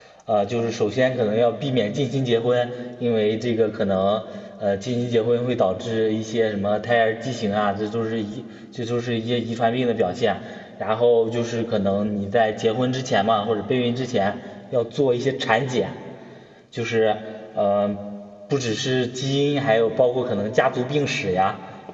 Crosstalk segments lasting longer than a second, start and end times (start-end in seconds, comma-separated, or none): none